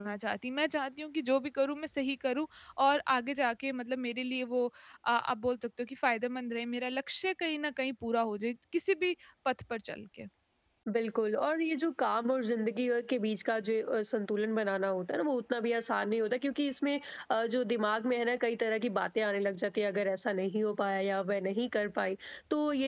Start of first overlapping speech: none

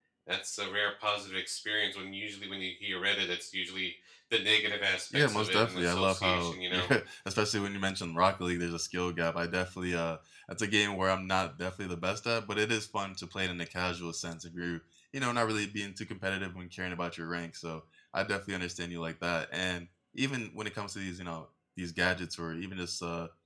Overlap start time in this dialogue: 5 s

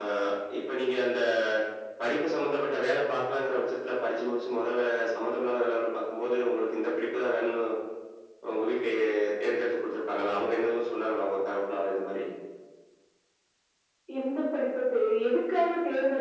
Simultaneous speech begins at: none

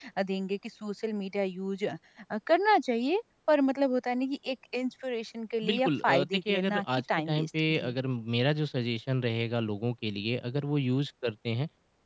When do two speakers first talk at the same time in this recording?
6 s

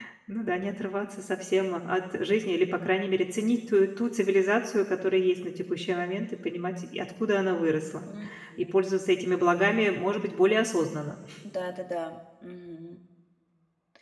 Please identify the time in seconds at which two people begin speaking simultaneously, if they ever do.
none

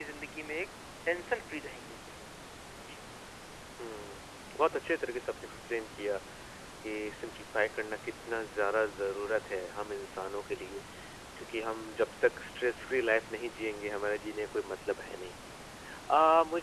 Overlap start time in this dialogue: none

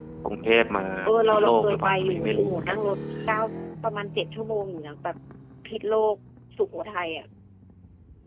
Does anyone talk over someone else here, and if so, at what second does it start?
1 s

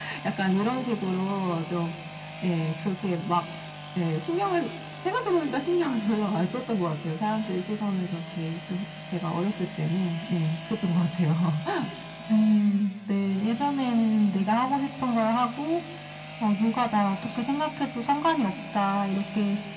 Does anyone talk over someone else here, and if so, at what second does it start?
none

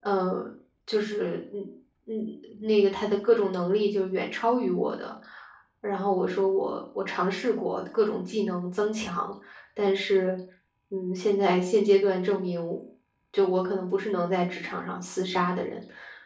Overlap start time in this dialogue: none

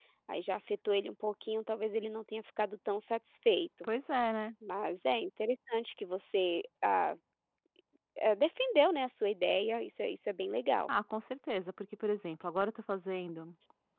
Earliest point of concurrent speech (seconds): none

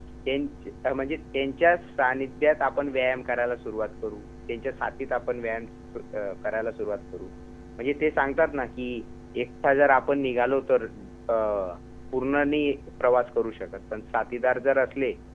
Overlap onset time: none

